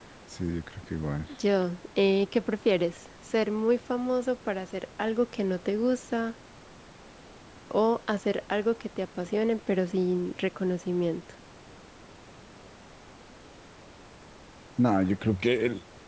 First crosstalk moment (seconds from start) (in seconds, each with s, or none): none